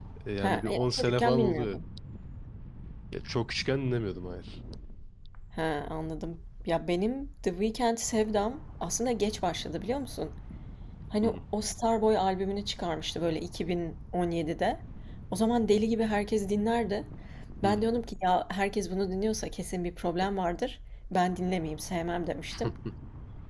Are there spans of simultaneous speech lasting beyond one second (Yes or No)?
Yes